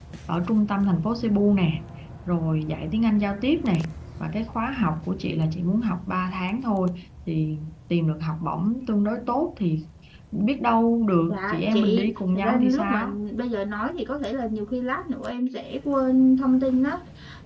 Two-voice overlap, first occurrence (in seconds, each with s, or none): 11.3 s